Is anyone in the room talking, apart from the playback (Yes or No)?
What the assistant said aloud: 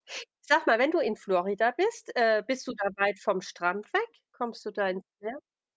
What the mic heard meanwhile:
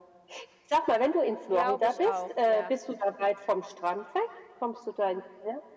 Yes